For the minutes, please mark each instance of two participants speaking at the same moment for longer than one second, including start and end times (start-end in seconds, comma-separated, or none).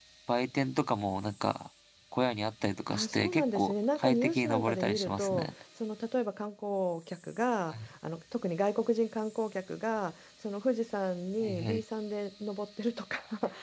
2.9-5.5